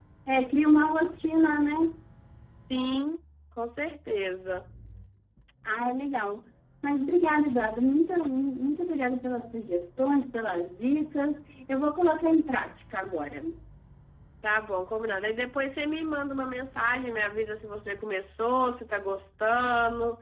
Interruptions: none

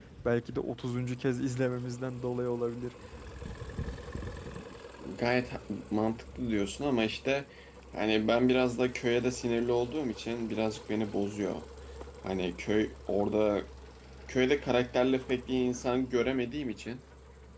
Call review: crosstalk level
none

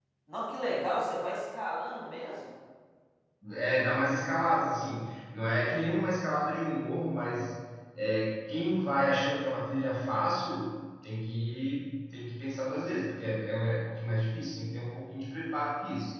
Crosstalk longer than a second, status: none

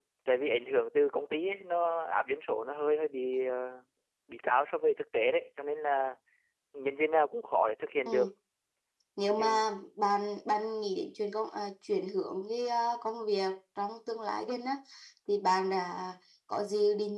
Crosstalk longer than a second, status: none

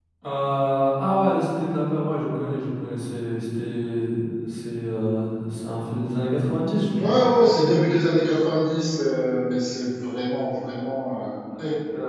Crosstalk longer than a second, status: none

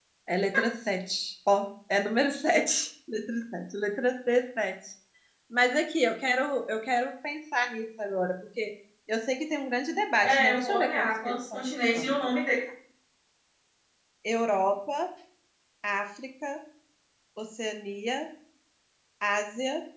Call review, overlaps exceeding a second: present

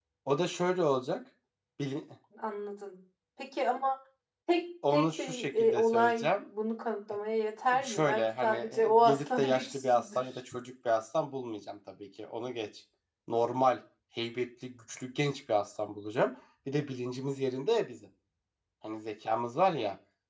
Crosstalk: present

